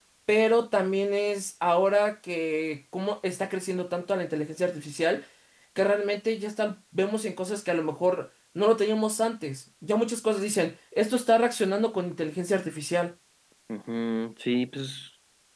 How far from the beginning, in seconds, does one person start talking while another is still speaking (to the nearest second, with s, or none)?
none